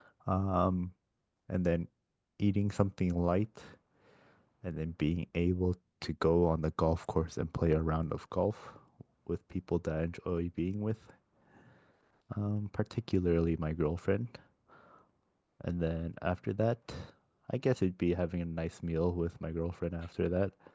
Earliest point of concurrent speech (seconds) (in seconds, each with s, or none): none